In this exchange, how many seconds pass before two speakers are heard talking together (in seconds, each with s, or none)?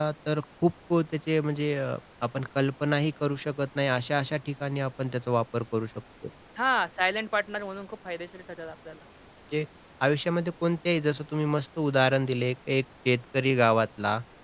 none